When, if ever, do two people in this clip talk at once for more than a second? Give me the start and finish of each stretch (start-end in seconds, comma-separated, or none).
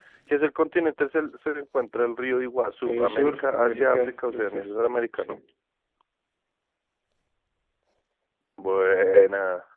2.8-4.7